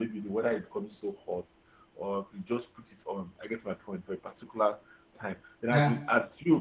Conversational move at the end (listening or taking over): listening